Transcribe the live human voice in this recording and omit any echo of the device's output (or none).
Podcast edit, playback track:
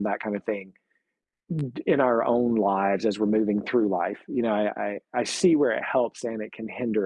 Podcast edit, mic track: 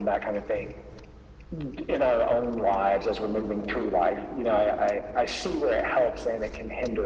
none